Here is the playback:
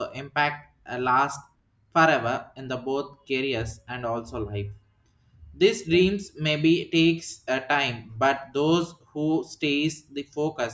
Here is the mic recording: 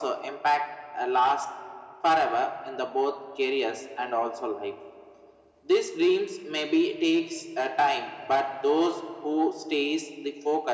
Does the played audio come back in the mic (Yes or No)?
Yes